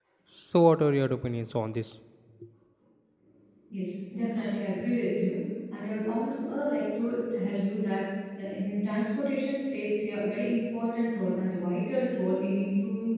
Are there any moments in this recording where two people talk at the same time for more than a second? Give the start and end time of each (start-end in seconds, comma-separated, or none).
none